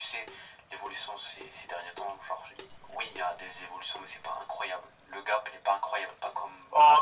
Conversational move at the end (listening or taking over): taking over